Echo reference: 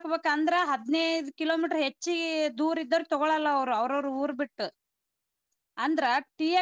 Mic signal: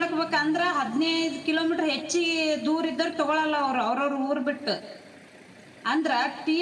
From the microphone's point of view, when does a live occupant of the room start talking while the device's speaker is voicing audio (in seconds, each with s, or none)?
none